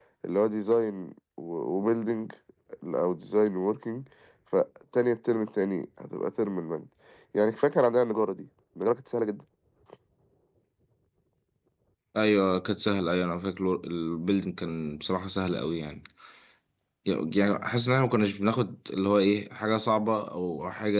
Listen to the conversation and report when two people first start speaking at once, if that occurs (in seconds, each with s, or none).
none